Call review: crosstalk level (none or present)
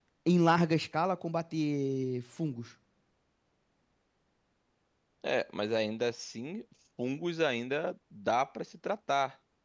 none